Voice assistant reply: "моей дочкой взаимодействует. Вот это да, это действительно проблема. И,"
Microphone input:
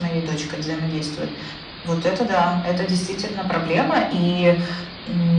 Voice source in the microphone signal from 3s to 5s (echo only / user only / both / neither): echo only